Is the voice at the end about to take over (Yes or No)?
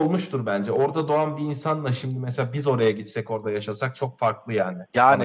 Yes